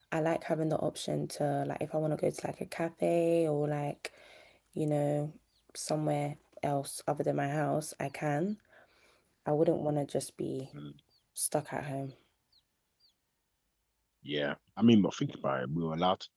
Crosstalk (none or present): none